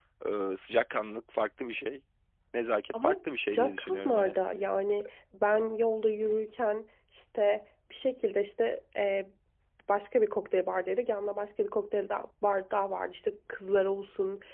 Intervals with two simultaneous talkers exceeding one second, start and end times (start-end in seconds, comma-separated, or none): 2.9-4.3